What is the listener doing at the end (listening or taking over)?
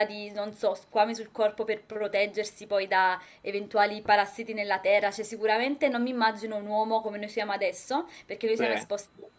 listening